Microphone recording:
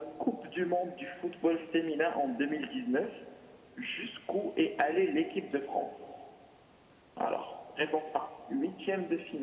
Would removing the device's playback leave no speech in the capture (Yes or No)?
Yes